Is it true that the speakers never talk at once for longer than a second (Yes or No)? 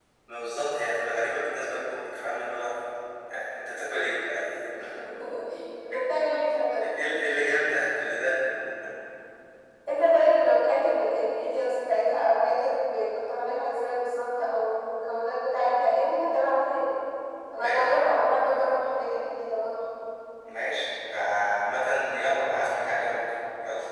Yes